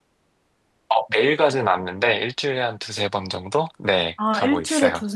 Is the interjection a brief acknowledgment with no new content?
No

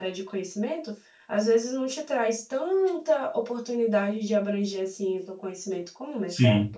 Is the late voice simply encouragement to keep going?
No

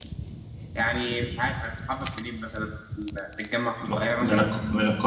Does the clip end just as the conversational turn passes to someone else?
Yes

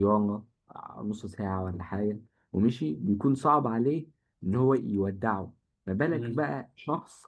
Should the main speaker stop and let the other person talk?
No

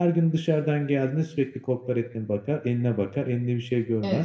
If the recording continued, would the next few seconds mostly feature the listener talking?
Yes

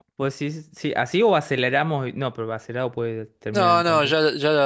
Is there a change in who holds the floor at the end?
Yes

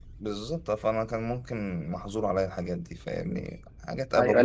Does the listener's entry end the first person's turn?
Yes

